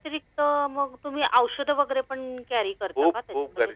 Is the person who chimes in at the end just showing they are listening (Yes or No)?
No